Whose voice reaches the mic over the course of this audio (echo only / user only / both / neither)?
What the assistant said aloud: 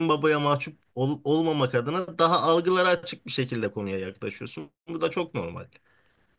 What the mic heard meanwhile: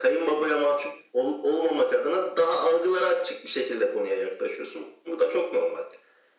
echo only